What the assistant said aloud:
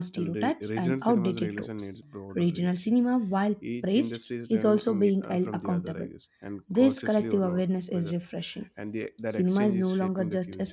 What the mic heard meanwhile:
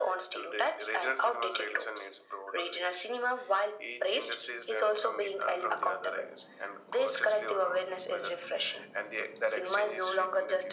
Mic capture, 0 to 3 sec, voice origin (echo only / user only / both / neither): echo only